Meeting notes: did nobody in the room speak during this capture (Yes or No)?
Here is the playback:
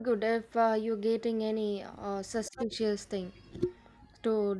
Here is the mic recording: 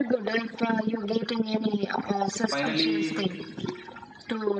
No